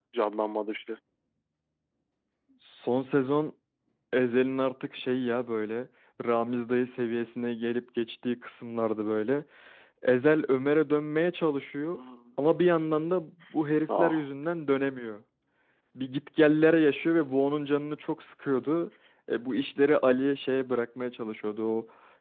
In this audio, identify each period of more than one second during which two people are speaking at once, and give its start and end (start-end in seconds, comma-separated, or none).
none